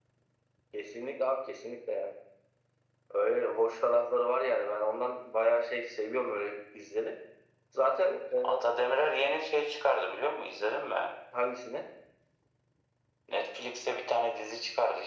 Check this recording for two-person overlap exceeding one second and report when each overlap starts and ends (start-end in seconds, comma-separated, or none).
none